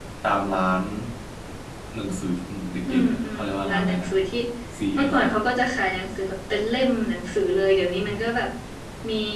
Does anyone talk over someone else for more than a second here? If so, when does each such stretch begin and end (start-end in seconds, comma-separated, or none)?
2.9-4.1